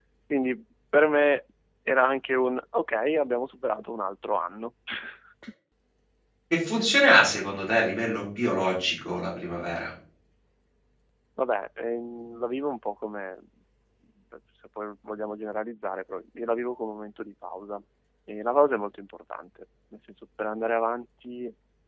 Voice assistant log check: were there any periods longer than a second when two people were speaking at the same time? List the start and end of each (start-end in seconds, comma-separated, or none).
none